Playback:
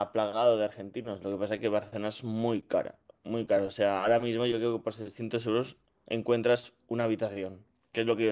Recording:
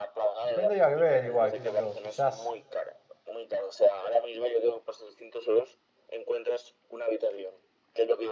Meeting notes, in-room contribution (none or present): present